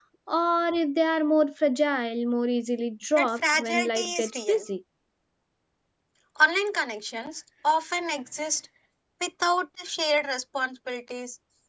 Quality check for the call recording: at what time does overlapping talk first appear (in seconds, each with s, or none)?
3.2 s